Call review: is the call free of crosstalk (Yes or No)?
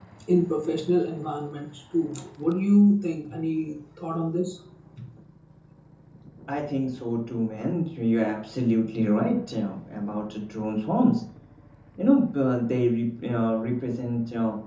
Yes